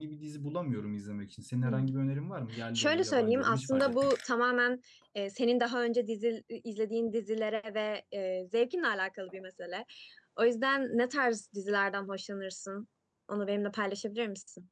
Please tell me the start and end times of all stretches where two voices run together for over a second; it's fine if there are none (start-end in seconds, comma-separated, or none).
2.8-4.1